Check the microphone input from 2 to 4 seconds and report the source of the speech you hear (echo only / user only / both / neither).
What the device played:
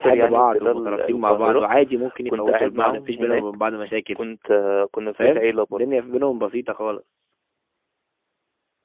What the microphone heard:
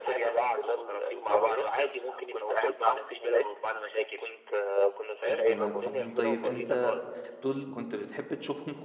echo only